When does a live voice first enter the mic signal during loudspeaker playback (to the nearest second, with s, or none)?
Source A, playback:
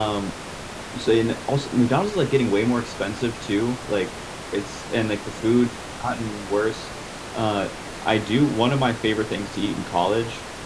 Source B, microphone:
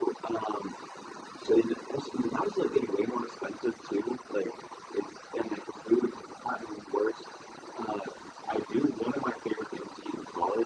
none